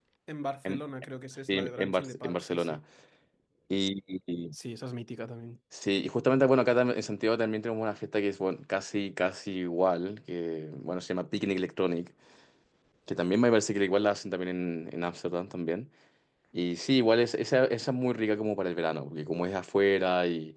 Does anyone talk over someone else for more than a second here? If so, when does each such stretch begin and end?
1.5-2.8

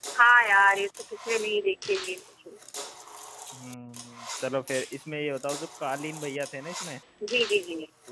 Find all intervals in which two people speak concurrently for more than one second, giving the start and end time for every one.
none

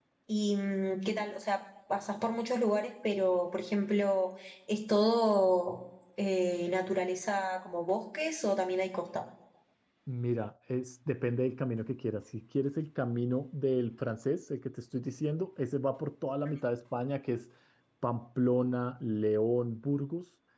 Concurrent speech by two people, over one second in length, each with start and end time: none

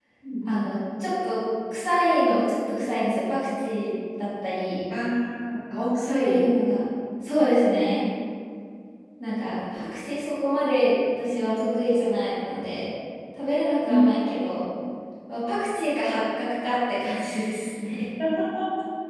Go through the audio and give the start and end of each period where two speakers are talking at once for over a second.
none

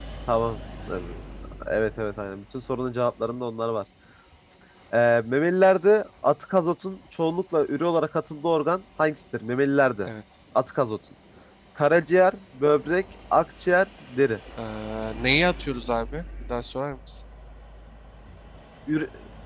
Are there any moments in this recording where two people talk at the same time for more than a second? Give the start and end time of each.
none

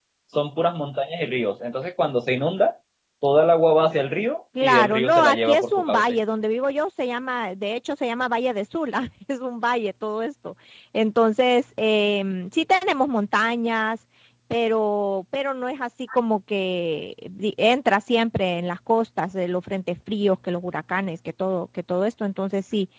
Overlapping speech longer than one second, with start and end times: 4.6-6.0

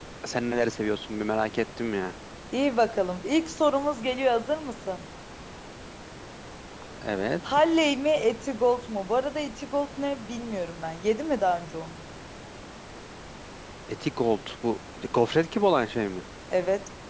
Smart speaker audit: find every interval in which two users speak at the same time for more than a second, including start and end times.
none

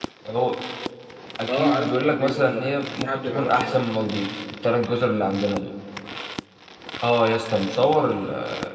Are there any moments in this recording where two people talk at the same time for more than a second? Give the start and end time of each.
1.5-3.8

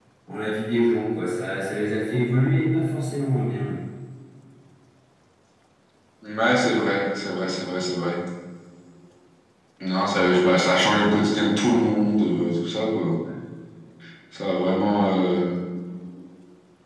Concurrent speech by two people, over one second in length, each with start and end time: none

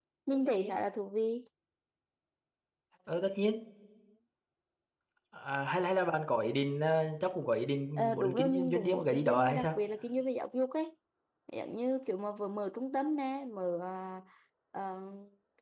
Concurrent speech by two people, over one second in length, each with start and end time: 8.0-9.7

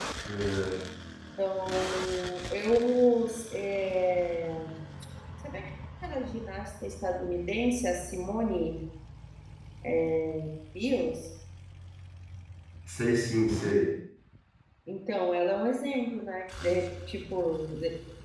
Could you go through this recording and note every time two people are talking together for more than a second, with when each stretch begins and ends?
none

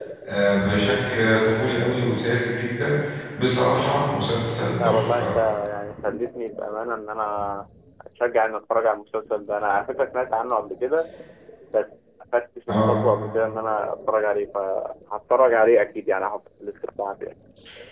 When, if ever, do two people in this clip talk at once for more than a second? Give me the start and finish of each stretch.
none

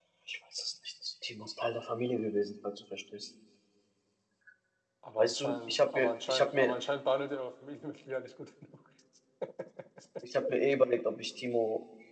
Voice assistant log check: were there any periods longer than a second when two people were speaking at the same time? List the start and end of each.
5.2-6.8

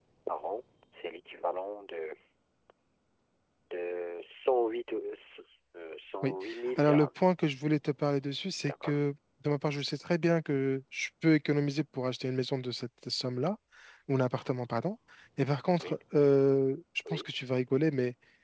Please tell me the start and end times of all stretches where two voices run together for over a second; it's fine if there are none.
none

